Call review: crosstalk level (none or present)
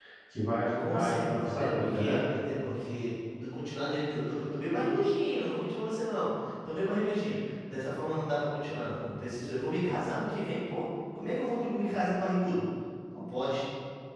present